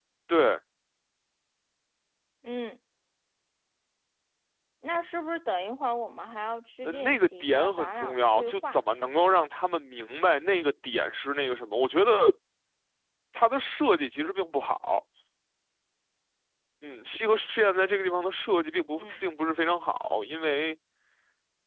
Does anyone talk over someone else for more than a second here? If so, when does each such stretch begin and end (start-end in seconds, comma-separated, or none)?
6.8-8.8